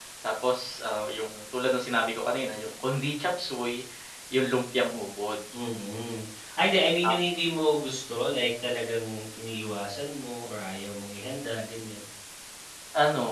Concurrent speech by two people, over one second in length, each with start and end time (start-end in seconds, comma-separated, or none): none